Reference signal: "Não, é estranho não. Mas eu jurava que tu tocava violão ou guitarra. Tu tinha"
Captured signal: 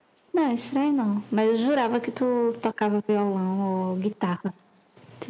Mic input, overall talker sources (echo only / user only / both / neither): echo only